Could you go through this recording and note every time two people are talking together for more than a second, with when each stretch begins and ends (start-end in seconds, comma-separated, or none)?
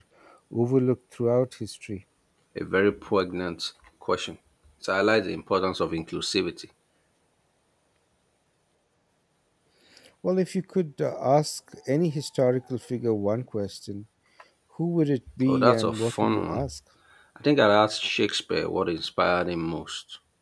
15.5-16.7